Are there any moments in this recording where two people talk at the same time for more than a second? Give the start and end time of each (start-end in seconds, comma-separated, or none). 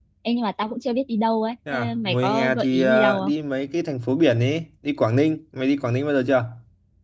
1.7-3.3